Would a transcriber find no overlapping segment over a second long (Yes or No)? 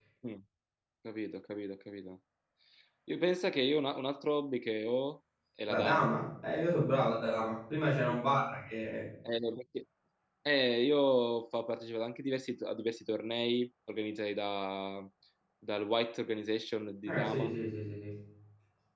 Yes